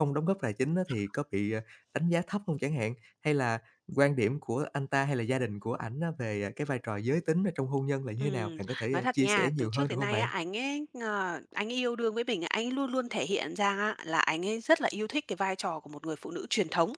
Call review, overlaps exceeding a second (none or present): present